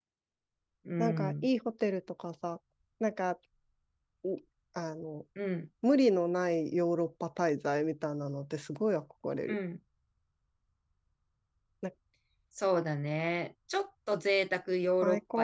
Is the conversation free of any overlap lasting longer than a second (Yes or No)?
Yes